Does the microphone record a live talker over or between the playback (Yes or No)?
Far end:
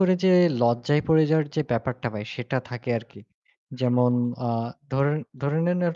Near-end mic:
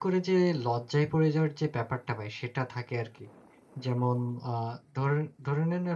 No